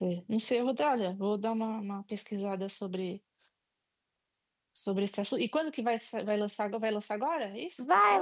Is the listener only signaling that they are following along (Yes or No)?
No